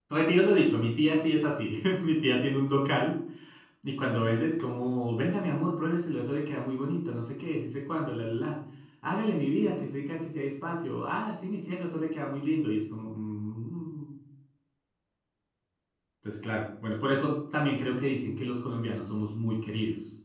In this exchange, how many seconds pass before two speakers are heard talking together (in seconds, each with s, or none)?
none